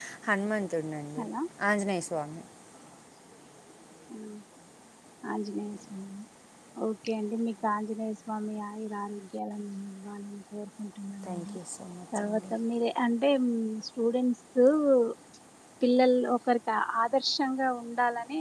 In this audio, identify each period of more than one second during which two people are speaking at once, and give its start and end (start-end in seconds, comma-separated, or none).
none